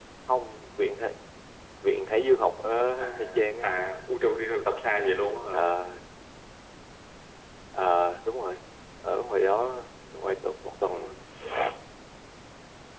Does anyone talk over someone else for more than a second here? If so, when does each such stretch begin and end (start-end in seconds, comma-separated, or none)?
none